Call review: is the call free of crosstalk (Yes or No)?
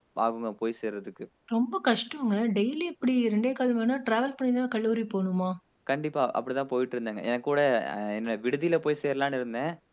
Yes